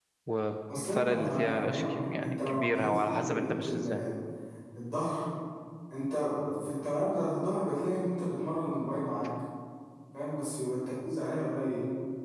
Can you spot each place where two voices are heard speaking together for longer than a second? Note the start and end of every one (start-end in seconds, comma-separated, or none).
0.7-4.0